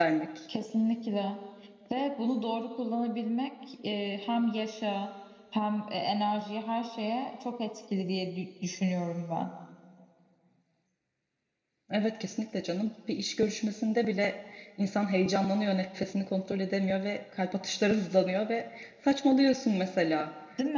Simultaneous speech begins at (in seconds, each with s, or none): none